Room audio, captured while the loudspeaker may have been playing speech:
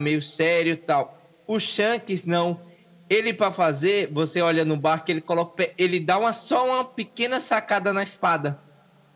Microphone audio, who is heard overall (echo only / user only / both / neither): echo only